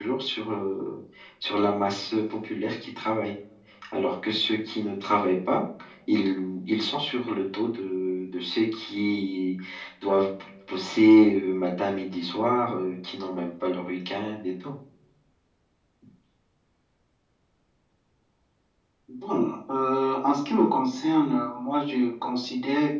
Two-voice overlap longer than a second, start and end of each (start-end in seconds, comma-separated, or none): none